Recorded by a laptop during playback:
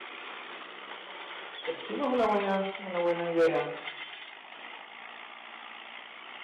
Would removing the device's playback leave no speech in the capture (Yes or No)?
No